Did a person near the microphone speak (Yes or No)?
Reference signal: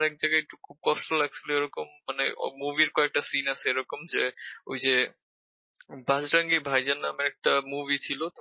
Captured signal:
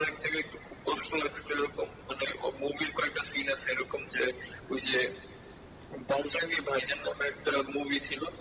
No